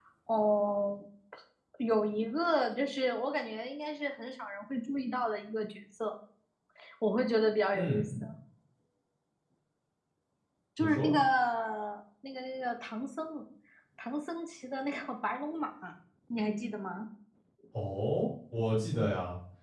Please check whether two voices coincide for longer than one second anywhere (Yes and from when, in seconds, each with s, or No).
No